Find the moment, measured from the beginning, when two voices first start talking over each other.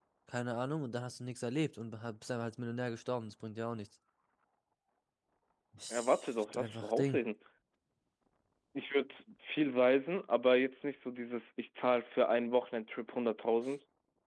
6 s

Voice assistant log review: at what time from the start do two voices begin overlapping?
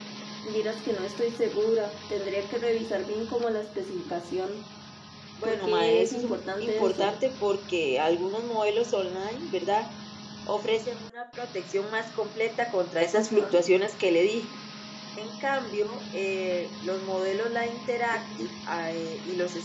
5 s

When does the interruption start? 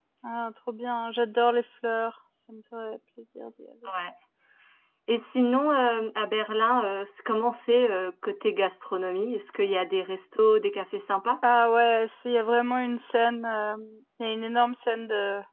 none

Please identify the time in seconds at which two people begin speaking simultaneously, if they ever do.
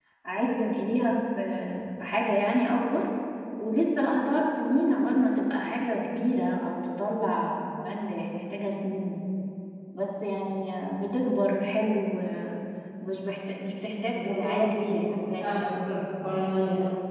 14 s

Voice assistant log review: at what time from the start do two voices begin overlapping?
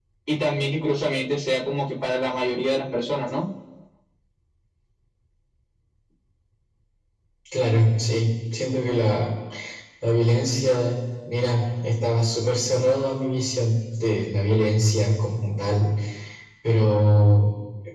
none

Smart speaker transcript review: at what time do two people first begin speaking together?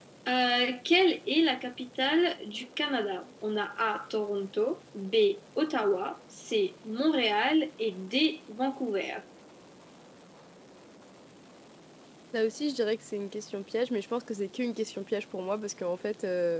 none

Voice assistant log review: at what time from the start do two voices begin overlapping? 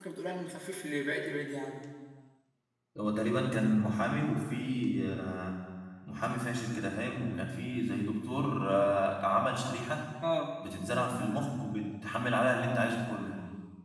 none

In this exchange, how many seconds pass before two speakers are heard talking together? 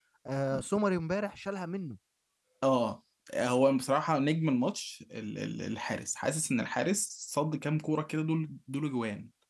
none

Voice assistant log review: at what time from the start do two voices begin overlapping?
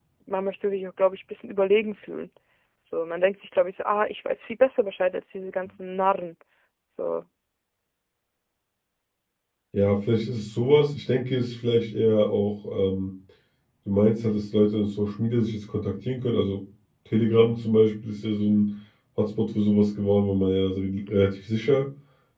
none

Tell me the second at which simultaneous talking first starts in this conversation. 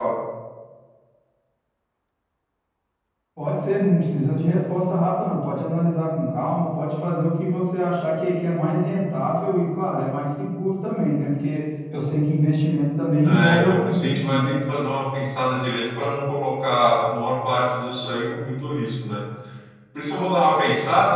13 s

